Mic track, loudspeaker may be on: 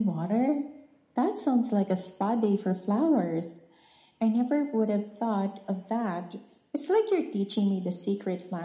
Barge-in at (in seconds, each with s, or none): none